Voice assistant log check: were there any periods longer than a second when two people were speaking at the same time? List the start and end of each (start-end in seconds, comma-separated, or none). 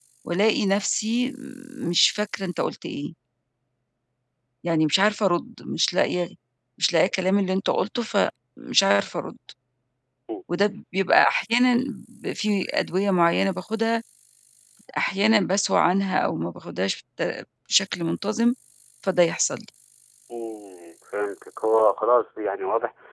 none